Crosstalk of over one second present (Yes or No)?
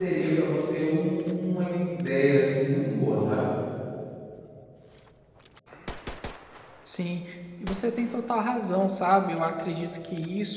No